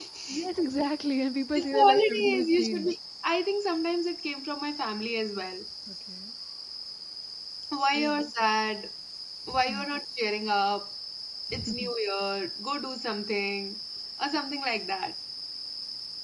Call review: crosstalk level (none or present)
present